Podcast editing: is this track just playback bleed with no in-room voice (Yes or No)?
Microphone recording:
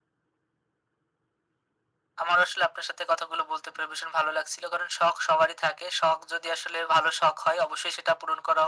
Yes